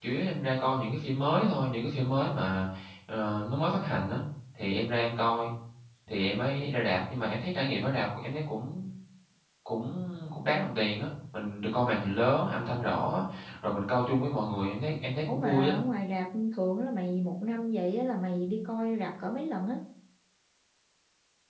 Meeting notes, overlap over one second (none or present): none